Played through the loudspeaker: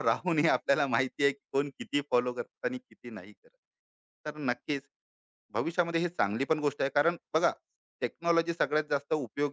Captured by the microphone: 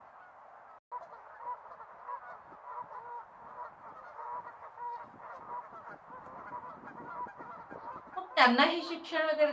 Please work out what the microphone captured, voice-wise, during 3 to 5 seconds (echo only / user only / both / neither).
neither